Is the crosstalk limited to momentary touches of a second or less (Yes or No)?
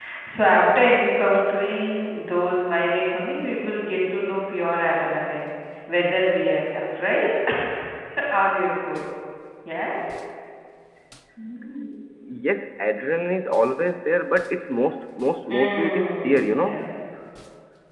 No